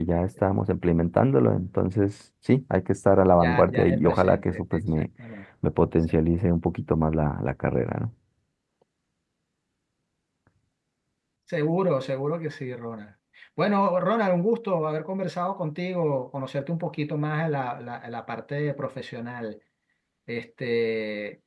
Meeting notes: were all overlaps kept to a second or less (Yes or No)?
No